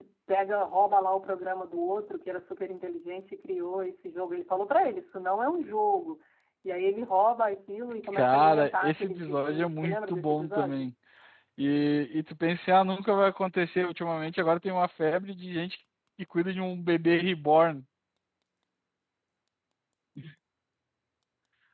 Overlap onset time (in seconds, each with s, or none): 8.0 s